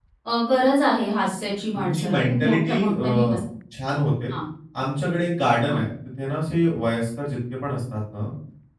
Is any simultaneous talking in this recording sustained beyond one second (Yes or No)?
Yes